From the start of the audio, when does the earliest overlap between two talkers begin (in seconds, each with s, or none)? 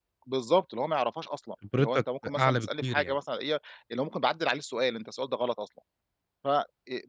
1.6 s